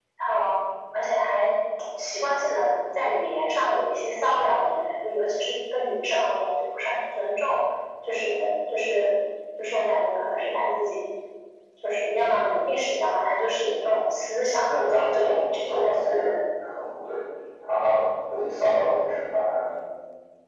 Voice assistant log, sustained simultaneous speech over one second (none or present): present